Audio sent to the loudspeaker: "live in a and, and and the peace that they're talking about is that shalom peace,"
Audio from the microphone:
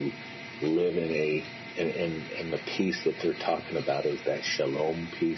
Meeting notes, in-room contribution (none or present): none